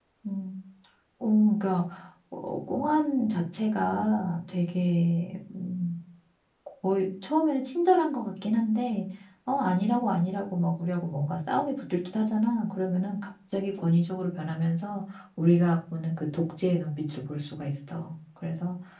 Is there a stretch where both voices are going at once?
No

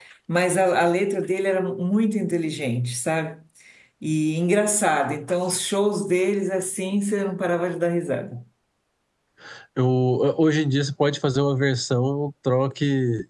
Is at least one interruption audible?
No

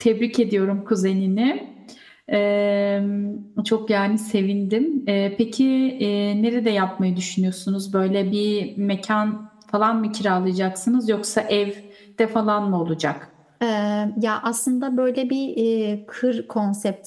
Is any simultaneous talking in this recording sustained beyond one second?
No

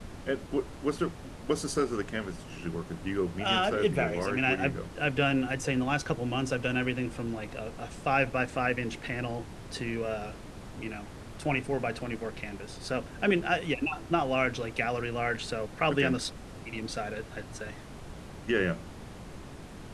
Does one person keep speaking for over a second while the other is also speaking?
Yes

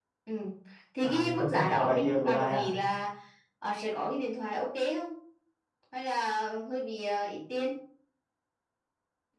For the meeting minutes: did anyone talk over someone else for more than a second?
Yes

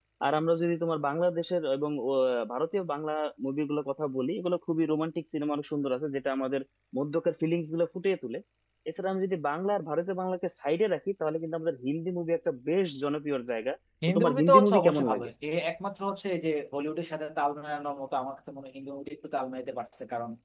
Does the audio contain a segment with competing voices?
Yes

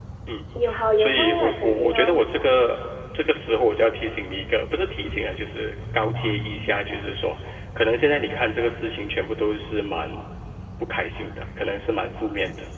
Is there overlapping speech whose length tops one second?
Yes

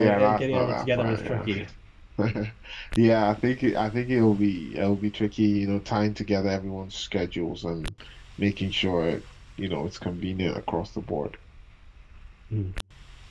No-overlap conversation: No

